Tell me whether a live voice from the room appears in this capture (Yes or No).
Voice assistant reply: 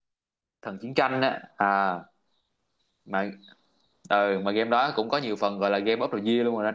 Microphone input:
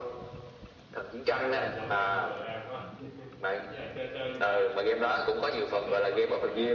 Yes